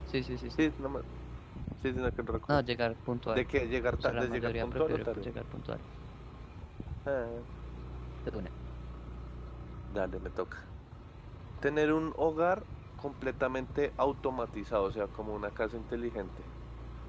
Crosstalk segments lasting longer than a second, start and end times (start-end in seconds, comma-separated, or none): 4.0-5.2